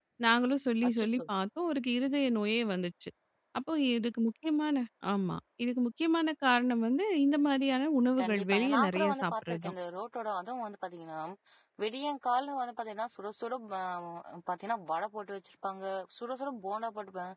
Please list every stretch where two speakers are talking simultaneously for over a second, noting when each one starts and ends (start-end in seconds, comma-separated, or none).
8.2-9.7